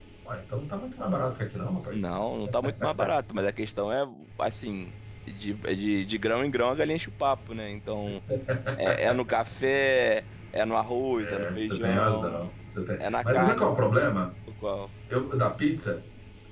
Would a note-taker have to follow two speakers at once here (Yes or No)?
Yes